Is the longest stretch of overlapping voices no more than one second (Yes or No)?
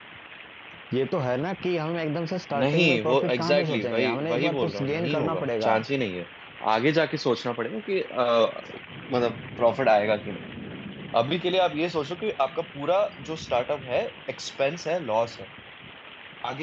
No